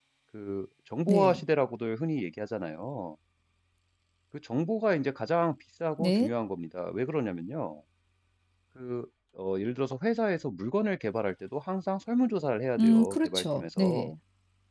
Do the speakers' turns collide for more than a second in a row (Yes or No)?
Yes